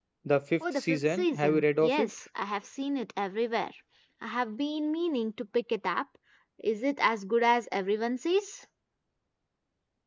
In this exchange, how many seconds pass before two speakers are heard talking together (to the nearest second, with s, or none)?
1 s